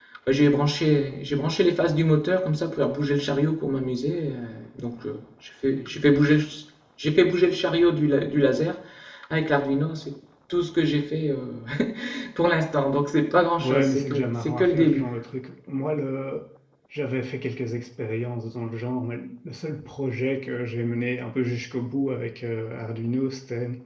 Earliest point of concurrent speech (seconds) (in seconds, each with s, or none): 13.6 s